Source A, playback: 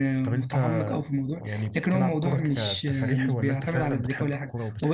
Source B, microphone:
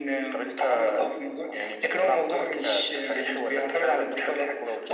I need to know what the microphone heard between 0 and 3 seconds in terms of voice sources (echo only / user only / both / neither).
echo only